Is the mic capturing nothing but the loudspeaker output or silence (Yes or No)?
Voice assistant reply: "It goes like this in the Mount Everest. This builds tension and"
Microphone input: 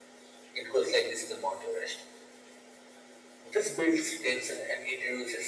Yes